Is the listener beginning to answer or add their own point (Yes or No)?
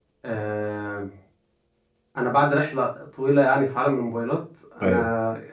No